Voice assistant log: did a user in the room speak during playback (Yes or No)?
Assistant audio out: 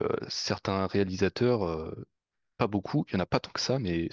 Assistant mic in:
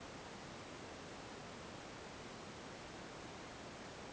No